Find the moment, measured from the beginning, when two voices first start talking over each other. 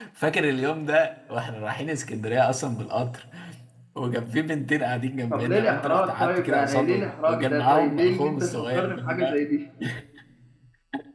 5 s

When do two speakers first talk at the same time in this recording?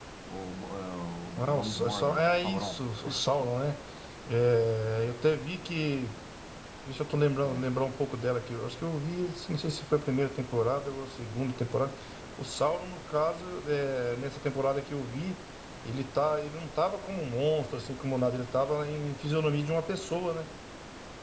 1 s

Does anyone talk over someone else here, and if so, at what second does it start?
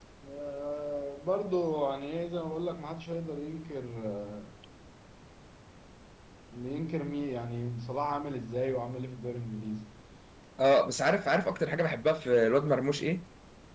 none

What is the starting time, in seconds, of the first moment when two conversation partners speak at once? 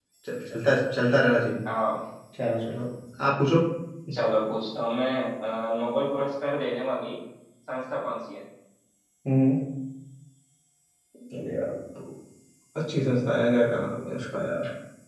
none

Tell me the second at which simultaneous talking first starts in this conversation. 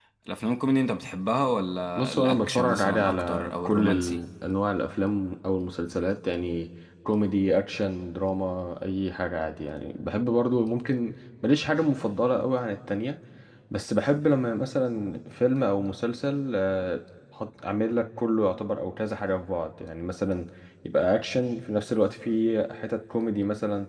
2 s

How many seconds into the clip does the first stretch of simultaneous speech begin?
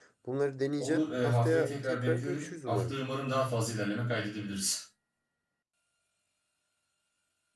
1 s

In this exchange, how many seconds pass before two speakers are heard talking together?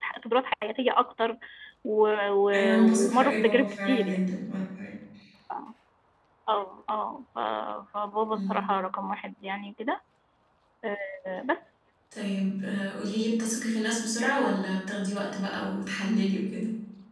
3 s

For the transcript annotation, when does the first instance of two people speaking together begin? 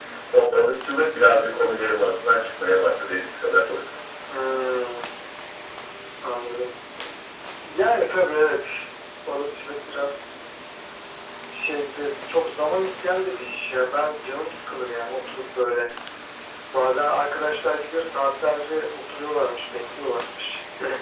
none

